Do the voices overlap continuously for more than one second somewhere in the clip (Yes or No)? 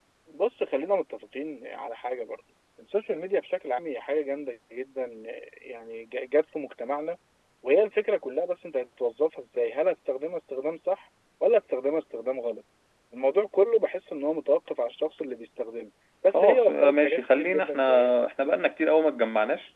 Yes